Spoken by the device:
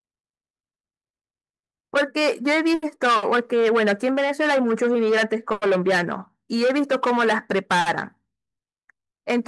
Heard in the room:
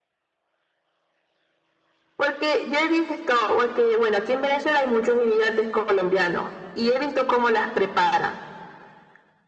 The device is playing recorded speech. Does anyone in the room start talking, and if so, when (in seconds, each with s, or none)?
none